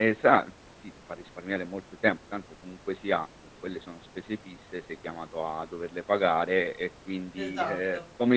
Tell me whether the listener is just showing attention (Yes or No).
Yes